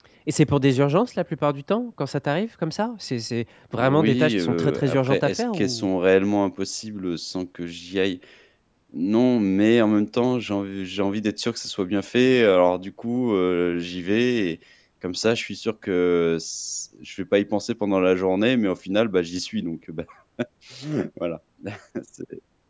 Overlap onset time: 3.7 s

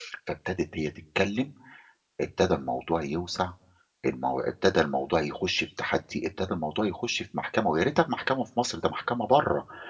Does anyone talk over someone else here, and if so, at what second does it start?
none

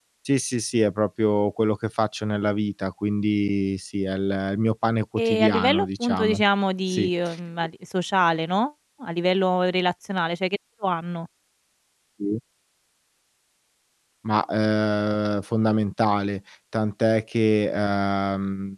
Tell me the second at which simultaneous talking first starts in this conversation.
5.2 s

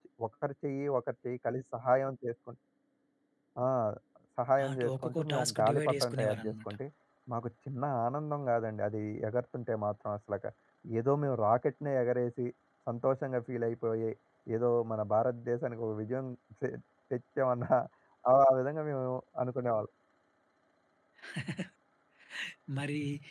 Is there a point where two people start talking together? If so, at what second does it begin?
4.6 s

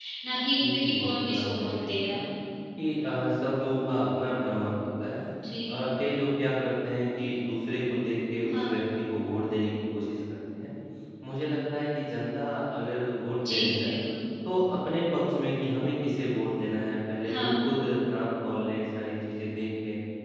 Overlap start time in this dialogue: 0.6 s

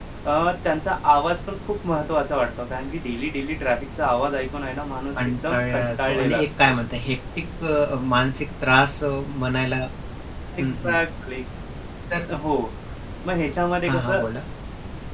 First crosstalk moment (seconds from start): 5.2 s

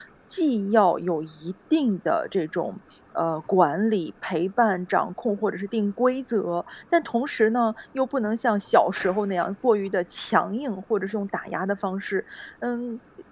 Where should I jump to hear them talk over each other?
none

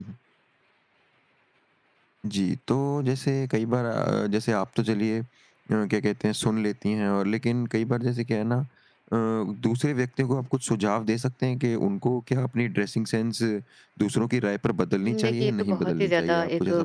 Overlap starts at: 15.0 s

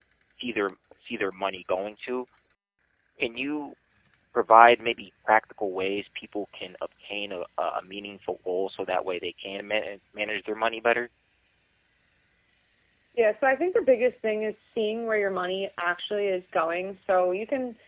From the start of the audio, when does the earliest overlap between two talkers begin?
none

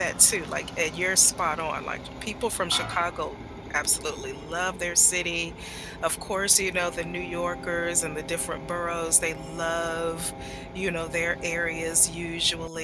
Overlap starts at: none

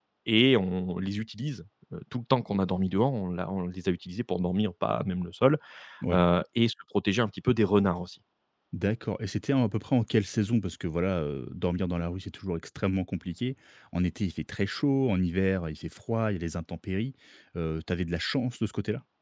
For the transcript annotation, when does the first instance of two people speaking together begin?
none

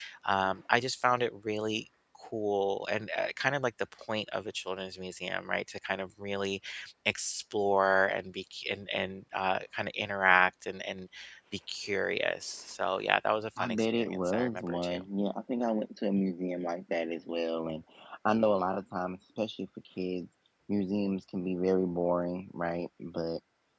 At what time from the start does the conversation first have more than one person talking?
13.6 s

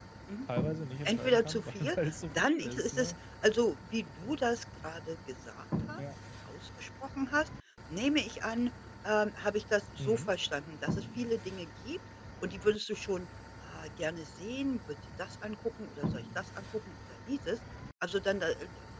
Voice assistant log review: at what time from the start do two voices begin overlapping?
1.0 s

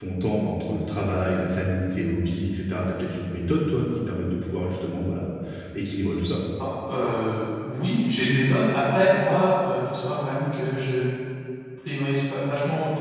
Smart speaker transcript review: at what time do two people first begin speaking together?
none

